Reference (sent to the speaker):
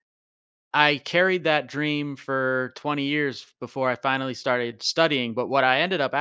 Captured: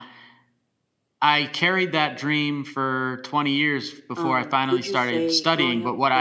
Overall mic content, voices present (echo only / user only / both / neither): both